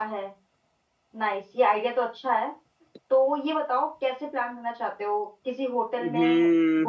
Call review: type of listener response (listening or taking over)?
taking over